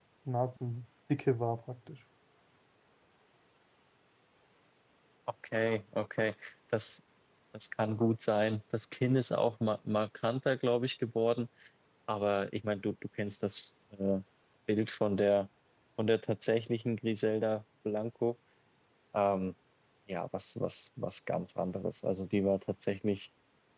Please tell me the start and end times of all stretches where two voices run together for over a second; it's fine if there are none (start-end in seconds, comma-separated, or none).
none